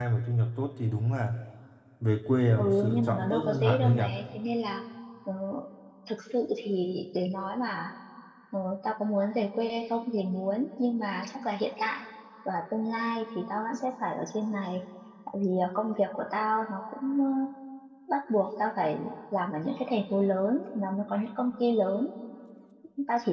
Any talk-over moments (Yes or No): Yes